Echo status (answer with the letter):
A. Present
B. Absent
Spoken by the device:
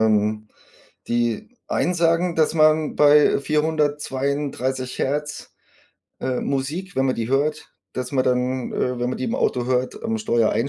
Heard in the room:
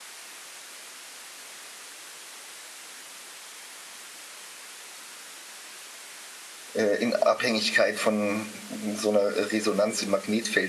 B